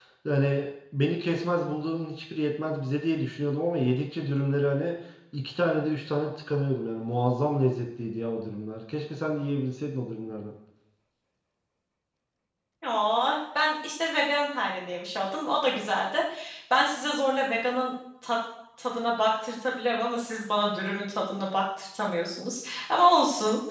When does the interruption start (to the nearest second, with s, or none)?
none